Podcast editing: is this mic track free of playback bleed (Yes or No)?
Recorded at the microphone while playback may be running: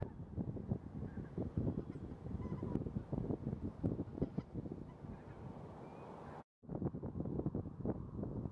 Yes